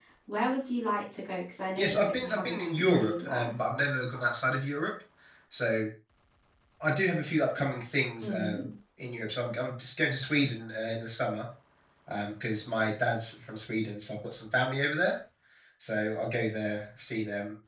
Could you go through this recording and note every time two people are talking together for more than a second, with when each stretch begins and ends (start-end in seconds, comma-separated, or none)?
1.8-3.5